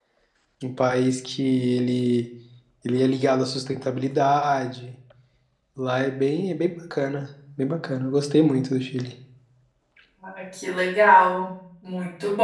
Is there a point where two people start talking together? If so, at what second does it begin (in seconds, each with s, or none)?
none